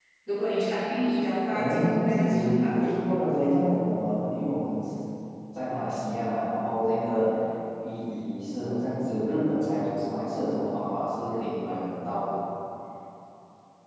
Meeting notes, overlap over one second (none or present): present